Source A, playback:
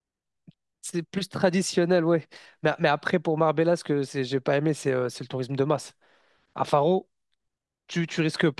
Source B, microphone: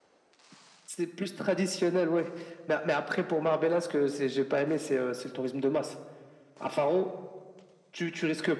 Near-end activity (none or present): none